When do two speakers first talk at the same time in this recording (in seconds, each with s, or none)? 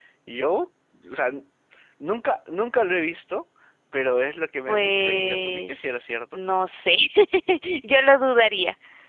4.7 s